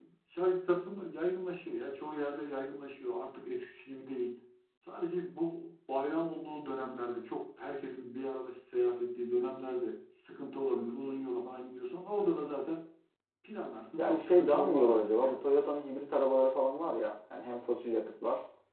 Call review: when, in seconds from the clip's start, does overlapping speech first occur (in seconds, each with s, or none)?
14.0 s